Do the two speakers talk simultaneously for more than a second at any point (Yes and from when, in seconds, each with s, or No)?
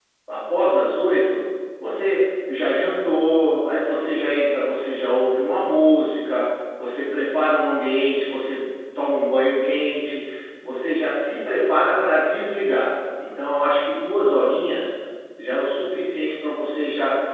No